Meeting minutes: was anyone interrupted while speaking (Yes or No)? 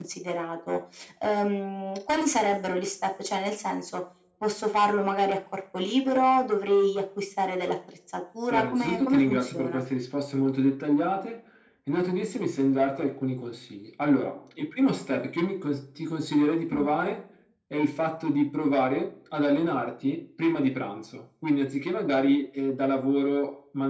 Yes